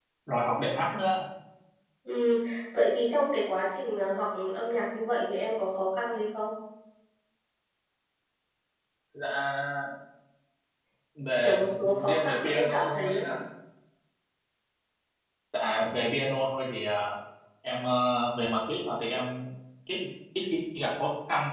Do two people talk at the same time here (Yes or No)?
Yes